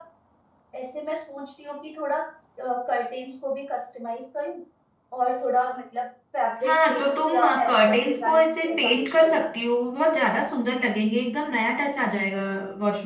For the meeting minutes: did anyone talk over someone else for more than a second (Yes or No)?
Yes